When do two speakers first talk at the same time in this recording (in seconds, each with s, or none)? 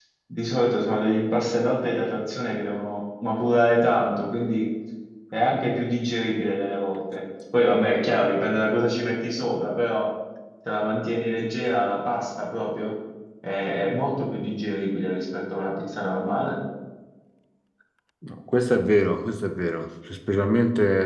none